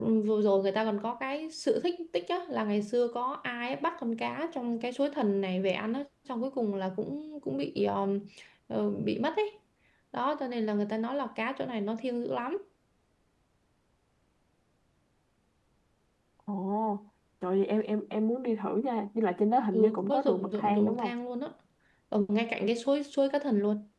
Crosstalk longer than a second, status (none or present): present